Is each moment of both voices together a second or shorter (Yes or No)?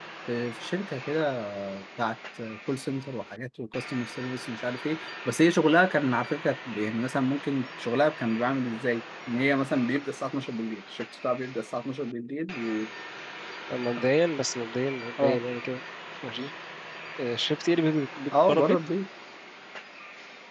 Yes